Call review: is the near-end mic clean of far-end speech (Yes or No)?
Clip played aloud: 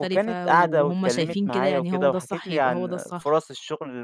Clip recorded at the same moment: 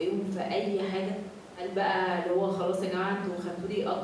Yes